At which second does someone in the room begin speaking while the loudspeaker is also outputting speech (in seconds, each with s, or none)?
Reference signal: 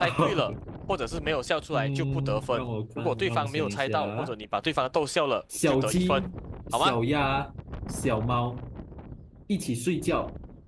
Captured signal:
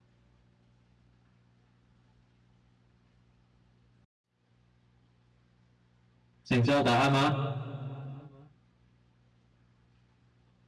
6.4 s